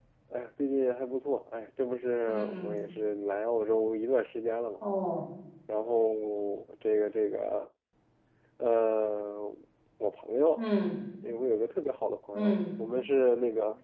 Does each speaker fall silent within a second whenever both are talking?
Yes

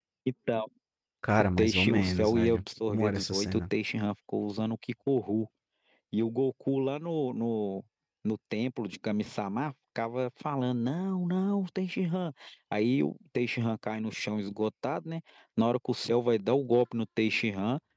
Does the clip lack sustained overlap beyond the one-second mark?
No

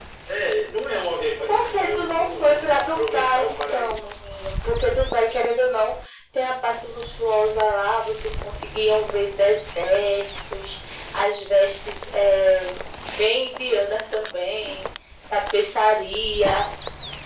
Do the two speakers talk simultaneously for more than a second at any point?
Yes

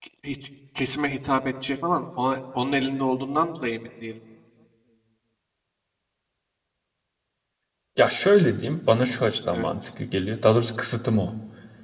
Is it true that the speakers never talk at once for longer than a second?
Yes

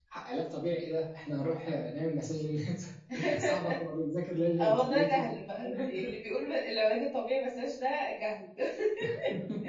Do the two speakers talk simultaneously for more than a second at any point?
Yes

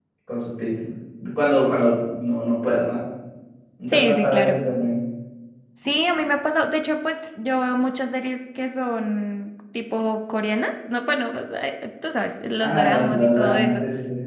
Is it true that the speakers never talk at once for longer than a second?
No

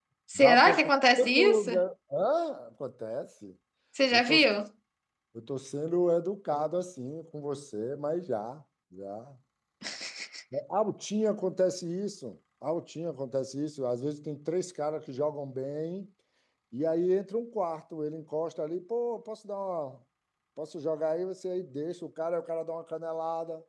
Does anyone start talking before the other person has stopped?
Yes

